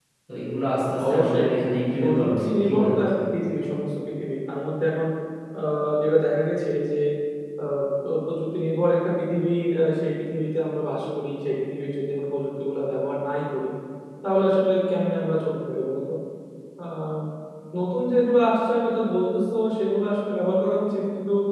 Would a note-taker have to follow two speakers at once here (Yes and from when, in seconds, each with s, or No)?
Yes, from 1.1 s